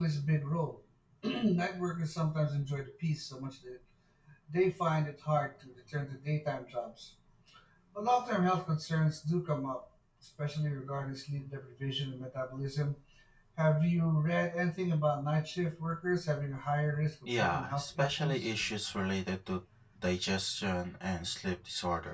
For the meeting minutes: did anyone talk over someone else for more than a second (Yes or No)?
Yes